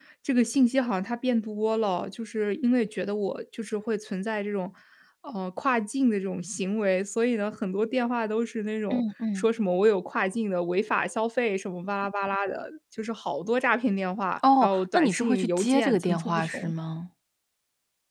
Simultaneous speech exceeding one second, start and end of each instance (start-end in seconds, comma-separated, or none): 14.6-16.7